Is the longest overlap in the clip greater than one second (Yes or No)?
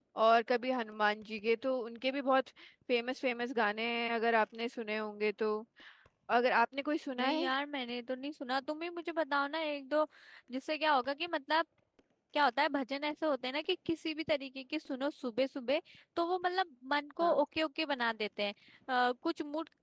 No